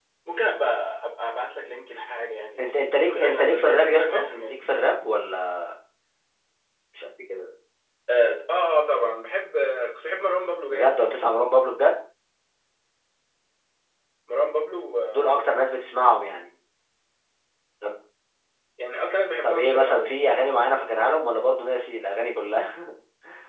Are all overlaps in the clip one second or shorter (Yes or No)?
No